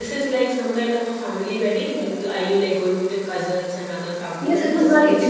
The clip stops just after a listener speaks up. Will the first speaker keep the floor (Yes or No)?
No